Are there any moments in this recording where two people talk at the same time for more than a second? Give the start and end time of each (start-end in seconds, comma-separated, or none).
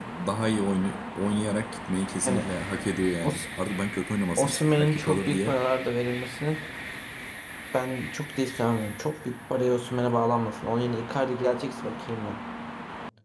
4.4-5.6